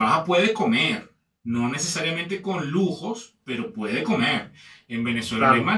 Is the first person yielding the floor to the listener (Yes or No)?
No